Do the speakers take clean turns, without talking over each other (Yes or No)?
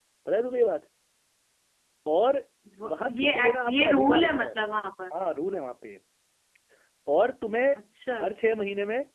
No